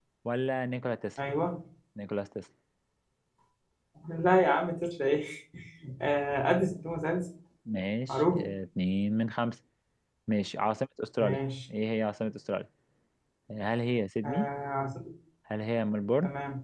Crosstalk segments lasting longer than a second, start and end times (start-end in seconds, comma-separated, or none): none